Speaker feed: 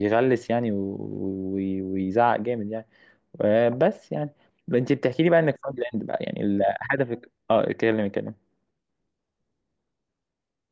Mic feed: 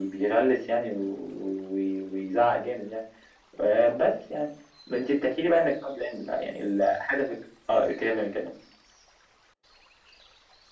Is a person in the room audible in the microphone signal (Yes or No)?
No